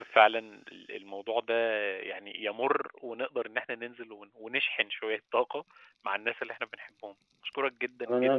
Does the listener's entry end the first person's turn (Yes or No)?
Yes